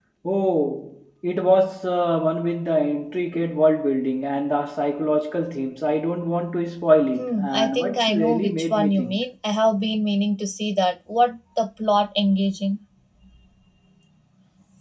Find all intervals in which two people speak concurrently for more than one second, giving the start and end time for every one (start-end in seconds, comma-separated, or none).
7.2-9.2